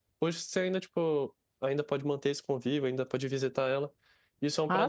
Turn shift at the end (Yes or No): No